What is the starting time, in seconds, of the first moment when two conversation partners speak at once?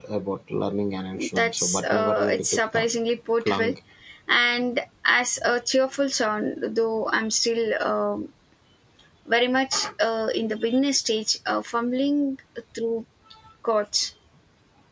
1.4 s

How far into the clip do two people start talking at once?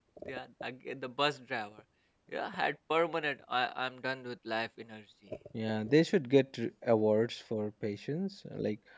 none

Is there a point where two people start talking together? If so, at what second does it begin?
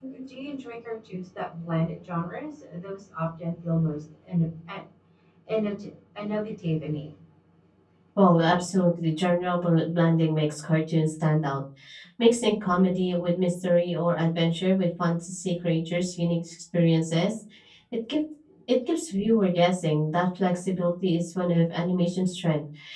none

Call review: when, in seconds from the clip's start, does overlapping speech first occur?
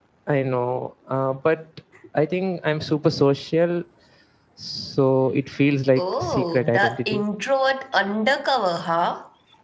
6.0 s

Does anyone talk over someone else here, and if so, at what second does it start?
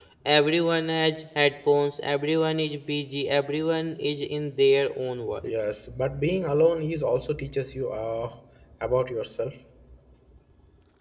none

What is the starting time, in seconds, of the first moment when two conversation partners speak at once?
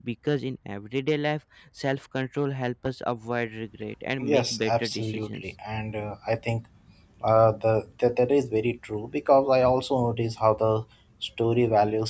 4.2 s

